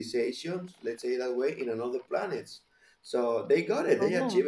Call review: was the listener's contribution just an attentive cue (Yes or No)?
Yes